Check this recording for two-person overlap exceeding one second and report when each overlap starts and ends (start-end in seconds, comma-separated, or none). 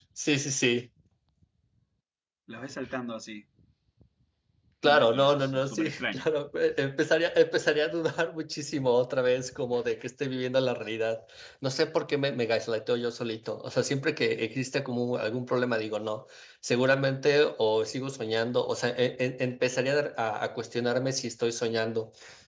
4.8-6.3